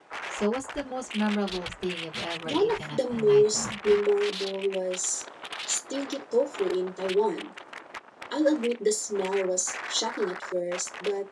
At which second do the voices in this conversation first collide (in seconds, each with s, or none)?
2.5 s